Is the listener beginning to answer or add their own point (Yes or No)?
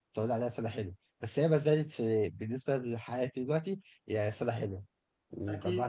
No